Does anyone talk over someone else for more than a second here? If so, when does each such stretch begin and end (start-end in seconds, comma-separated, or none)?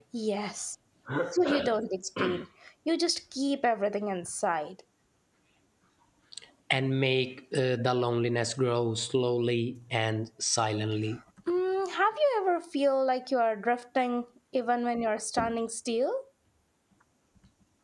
none